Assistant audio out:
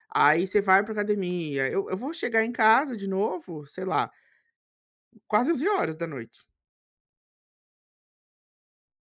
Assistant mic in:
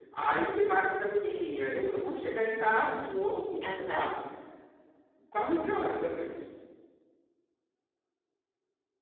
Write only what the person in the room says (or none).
Aham.